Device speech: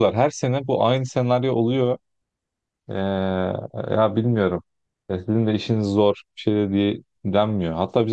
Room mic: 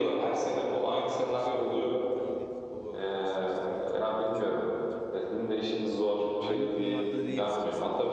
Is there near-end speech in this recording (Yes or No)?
Yes